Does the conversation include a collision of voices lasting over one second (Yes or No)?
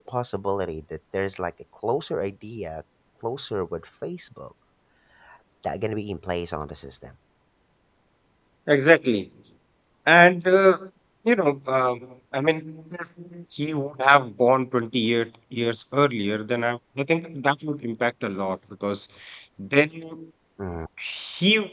No